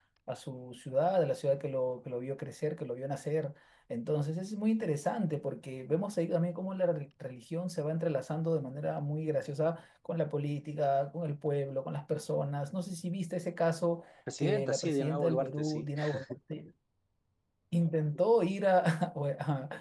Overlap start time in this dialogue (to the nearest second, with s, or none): 14 s